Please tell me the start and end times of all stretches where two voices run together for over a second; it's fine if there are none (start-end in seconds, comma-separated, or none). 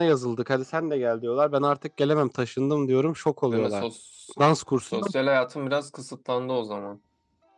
none